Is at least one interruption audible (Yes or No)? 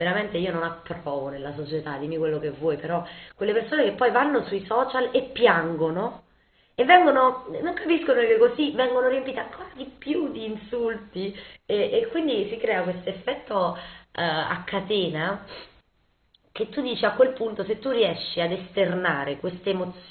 No